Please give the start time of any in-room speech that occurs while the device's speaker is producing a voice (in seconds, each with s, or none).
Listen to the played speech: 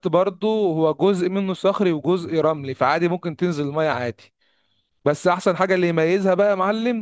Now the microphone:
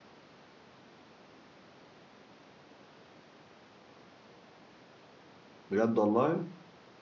5.7 s